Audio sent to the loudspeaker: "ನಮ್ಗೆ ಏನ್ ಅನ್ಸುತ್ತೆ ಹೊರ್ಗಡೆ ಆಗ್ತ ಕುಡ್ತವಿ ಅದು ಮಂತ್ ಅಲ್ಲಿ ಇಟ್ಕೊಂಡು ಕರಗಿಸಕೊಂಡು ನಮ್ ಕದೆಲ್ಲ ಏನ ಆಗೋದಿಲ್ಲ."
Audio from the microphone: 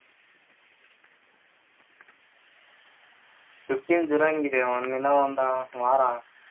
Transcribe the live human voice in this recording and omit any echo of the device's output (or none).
ಫಿಫ್ಟೀನ್ ಜುಲೈಗಿದೆ ಒಂದಿನ ಇನ್ನ ಒಂದು ವಾರ.